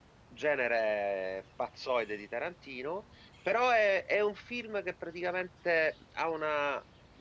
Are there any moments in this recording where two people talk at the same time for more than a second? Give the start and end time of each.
none

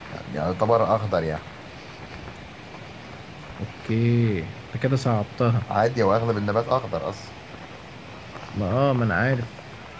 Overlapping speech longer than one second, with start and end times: none

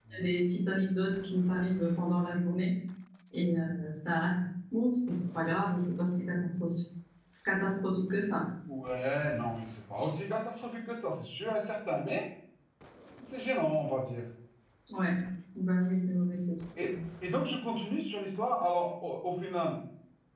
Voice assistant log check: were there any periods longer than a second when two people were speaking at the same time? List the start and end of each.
none

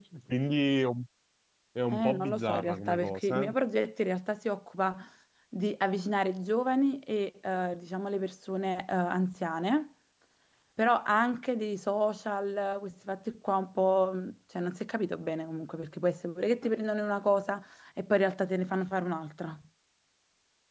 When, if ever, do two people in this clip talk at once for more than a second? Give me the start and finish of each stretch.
1.9-3.5

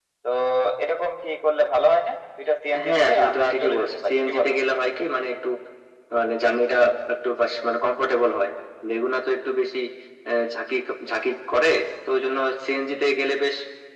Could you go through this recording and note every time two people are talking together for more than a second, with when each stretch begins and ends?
2.9-4.5

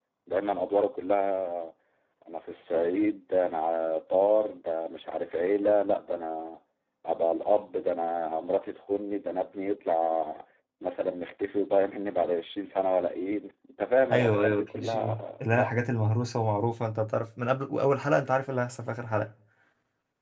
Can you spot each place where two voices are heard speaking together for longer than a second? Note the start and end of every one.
14.1-15.7

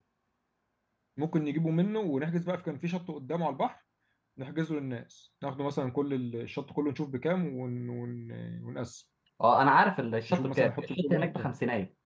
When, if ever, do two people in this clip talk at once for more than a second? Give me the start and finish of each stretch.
10.3-11.5

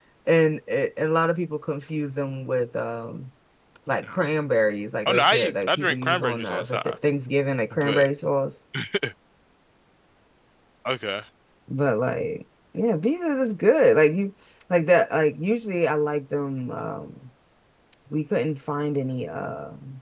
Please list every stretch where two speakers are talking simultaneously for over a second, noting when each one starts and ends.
5.0-7.0

